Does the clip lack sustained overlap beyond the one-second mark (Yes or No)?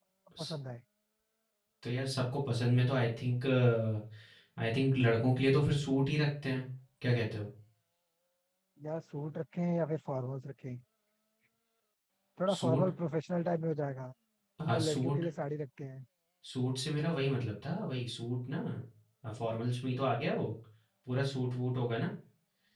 Yes